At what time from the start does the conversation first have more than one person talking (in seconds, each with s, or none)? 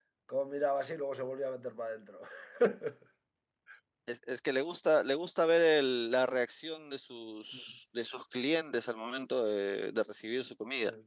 none